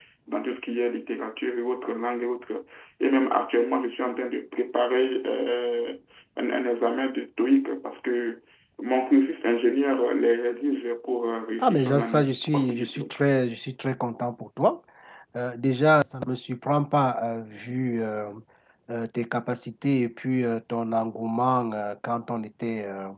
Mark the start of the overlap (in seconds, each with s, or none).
11.6 s